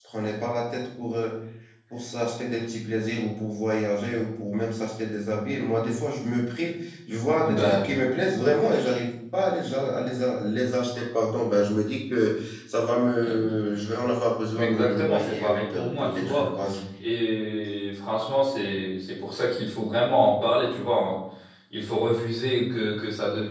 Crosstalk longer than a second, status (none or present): present